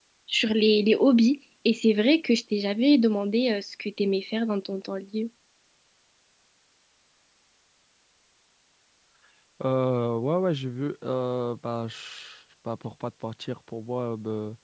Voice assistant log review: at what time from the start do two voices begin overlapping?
none

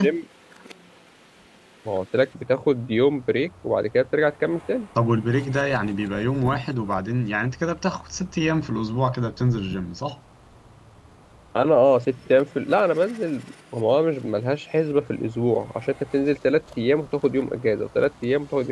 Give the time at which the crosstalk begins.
none

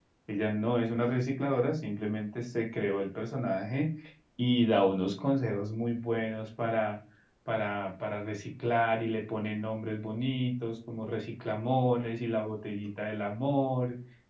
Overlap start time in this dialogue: none

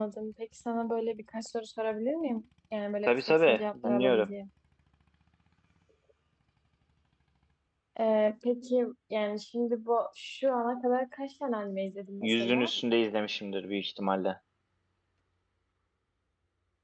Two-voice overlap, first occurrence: 3 s

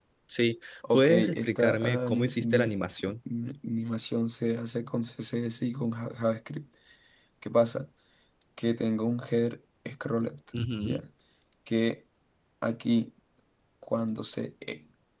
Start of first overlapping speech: 1 s

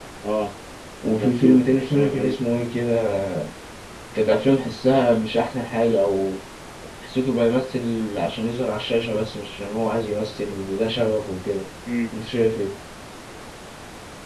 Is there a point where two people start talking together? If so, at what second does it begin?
1 s

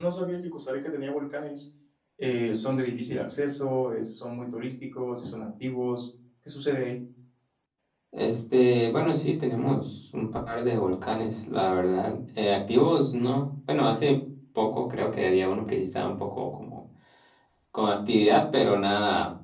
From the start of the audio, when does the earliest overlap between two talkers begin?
none

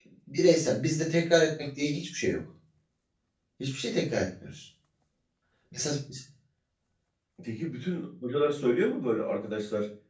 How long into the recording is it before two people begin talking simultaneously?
none

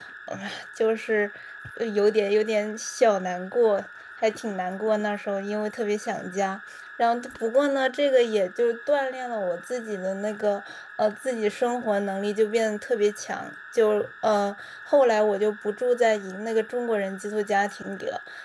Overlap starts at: none

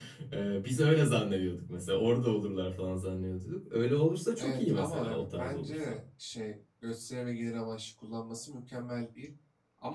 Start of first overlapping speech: 4 s

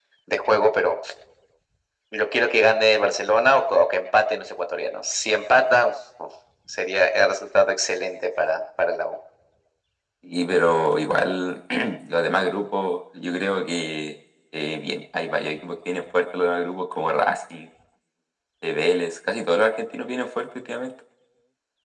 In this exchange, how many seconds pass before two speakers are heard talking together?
none

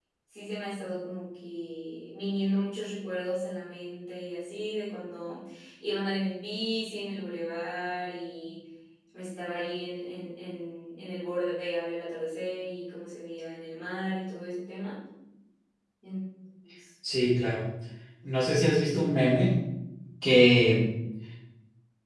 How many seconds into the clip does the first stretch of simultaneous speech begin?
none

